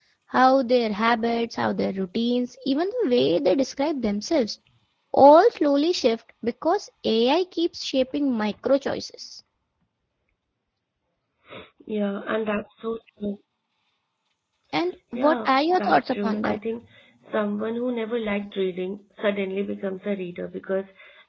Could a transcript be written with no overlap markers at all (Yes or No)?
No